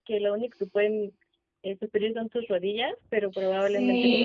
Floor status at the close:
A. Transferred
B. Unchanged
A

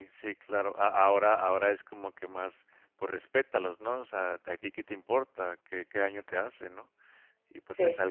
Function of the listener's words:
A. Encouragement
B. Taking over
A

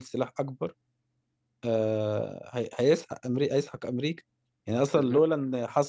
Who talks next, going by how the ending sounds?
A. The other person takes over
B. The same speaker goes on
B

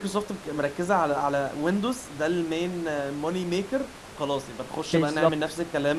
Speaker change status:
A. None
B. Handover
A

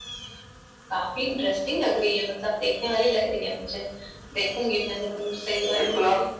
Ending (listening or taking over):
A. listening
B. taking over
B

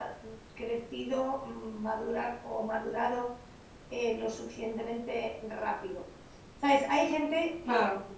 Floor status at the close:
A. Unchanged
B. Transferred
A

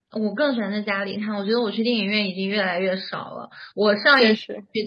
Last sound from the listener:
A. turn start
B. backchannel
B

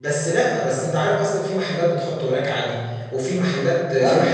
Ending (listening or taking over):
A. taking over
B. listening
B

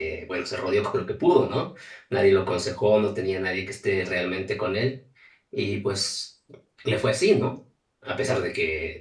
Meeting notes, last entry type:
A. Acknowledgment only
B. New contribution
A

